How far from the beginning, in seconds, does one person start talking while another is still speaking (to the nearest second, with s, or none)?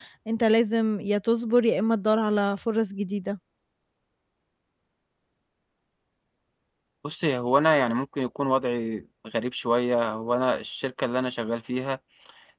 none